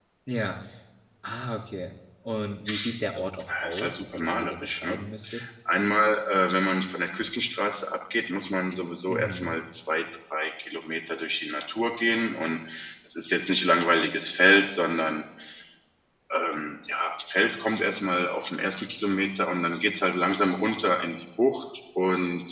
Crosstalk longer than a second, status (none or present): present